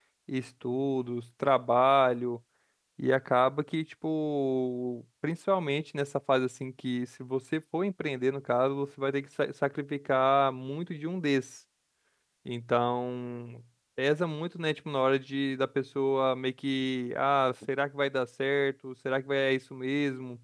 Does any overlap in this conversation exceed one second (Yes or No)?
No